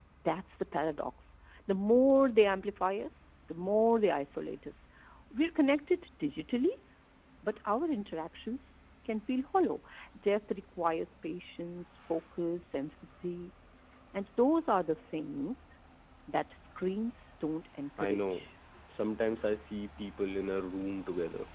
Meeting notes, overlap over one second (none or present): none